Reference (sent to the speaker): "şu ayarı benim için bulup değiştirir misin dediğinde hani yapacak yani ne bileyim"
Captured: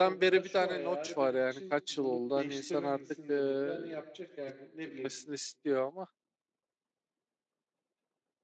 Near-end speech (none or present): present